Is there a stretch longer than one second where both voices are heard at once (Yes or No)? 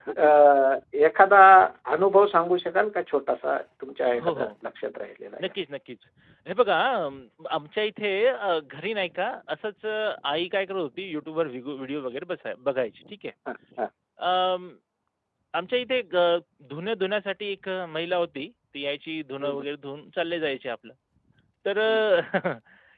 No